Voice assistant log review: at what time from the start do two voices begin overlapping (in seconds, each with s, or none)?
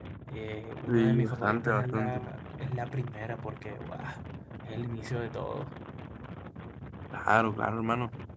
0.9 s